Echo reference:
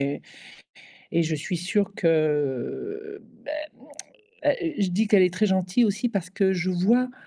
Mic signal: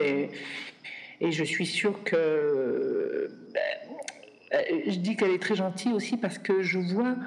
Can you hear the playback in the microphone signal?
Yes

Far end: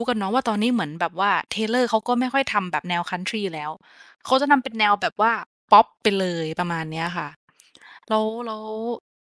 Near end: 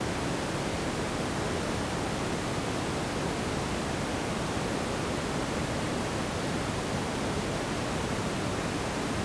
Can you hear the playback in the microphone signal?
No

